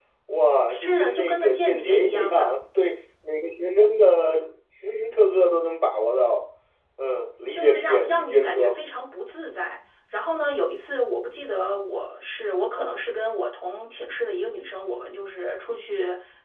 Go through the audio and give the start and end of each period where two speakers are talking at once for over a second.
0.7-2.6, 7.5-8.8

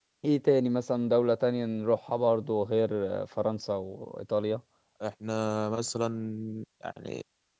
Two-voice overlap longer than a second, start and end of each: none

